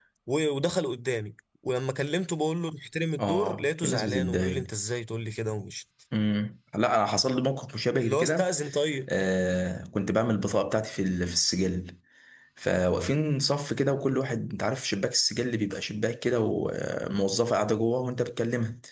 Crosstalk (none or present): present